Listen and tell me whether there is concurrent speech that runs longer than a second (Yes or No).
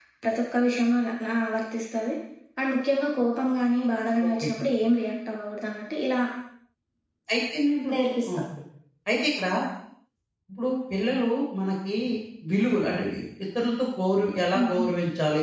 No